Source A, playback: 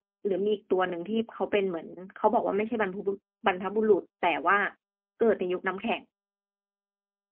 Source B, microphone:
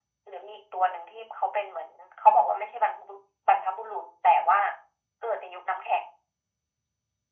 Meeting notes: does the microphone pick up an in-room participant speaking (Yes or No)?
No